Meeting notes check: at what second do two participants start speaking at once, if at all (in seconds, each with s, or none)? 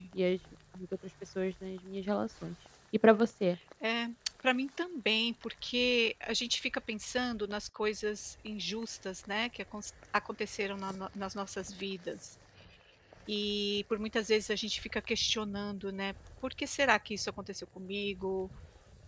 none